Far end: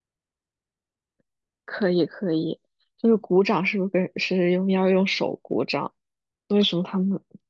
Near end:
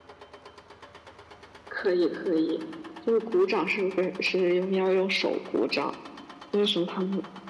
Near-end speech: none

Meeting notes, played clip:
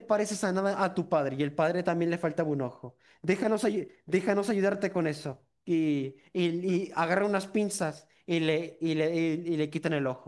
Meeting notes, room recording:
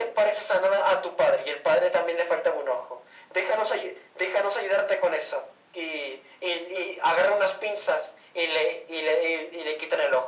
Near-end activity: none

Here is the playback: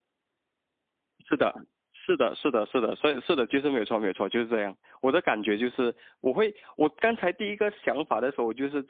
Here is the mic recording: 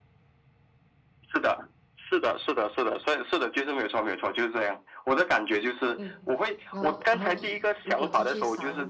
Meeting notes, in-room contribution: present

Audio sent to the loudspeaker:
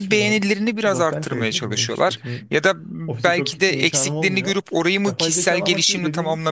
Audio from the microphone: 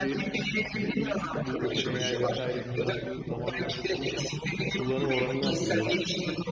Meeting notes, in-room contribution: present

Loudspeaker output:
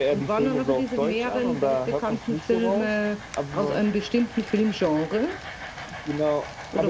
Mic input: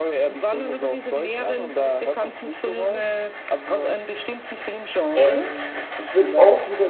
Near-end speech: present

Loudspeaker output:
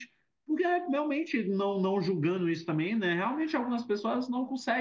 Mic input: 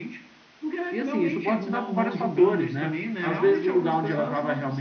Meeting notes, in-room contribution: present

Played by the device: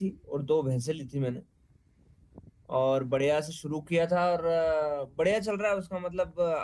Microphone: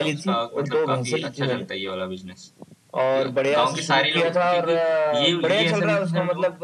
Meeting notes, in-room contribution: present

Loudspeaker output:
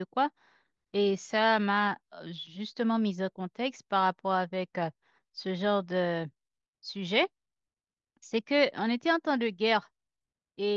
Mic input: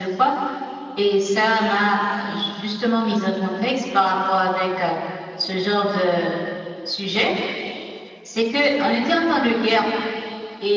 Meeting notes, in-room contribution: none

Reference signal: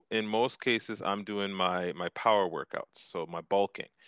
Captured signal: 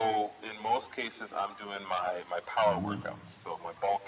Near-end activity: present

